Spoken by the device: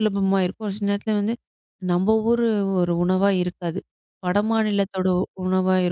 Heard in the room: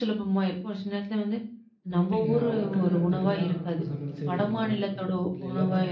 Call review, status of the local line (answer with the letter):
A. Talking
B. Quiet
A